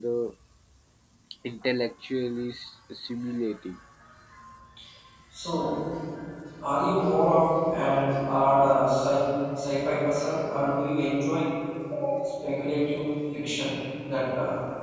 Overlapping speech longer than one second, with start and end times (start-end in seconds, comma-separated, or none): none